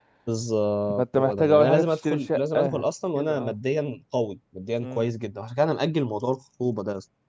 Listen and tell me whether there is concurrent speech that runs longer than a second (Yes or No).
Yes